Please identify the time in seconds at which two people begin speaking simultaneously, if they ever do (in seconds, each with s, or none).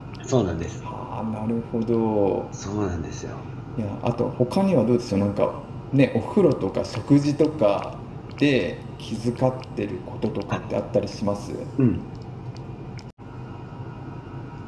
none